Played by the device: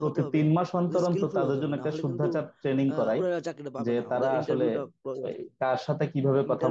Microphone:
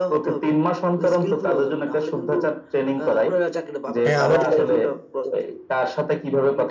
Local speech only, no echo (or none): হ্যাঁ আমারও তাই